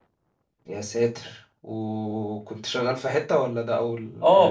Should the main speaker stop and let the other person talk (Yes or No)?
Yes